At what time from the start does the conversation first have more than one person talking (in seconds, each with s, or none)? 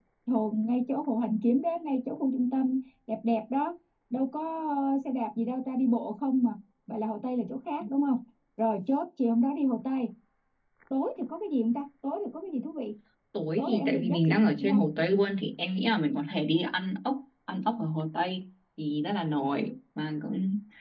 13.6 s